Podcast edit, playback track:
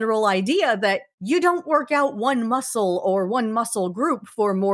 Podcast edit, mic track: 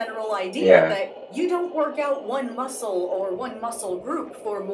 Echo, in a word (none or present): present